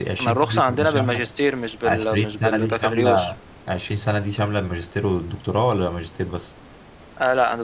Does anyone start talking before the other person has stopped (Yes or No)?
Yes